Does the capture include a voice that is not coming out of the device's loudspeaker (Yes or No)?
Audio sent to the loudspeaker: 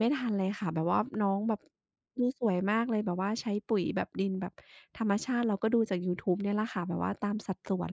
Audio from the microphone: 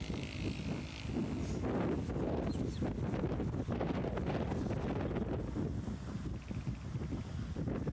No